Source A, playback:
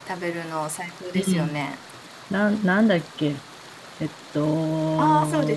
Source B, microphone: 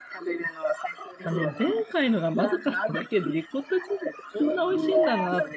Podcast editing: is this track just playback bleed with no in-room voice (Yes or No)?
No